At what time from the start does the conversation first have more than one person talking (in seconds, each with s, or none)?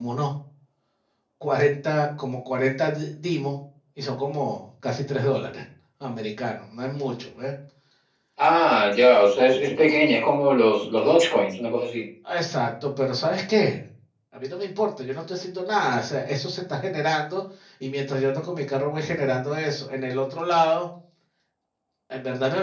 none